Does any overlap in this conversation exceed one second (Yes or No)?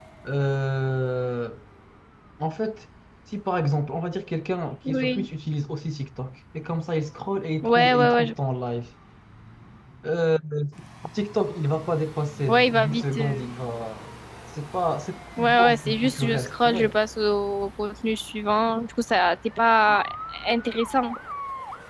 Yes